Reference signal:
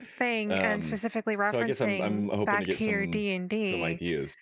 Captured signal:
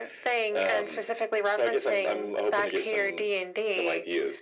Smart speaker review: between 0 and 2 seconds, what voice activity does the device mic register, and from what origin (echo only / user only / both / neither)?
echo only